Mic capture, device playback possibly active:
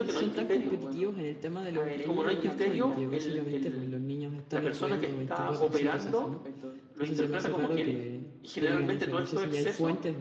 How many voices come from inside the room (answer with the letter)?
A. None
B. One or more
B